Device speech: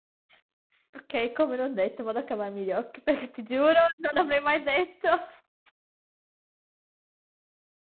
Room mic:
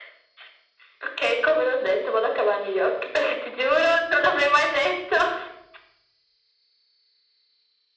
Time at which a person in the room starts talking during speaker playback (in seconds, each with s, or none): none